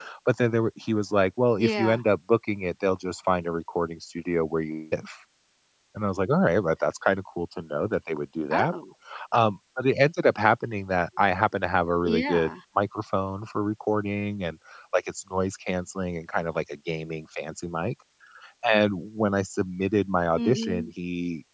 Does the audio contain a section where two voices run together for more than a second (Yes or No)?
No